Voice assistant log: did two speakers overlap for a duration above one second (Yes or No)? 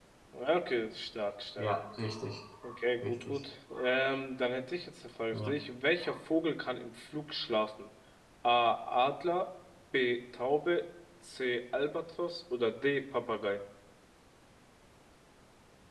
No